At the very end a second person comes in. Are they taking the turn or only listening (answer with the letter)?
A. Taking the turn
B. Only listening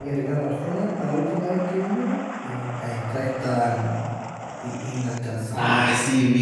A